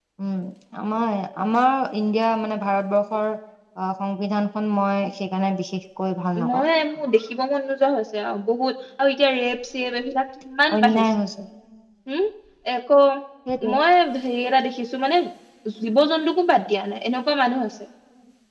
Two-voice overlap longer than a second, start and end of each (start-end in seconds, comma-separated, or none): none